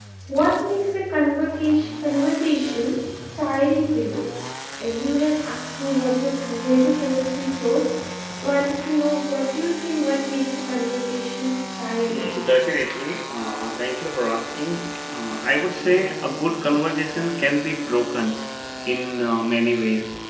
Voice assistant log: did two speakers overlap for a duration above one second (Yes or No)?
No